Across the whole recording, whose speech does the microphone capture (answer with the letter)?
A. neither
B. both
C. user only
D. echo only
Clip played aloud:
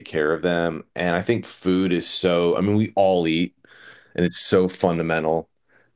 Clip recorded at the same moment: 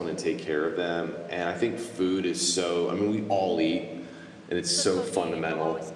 B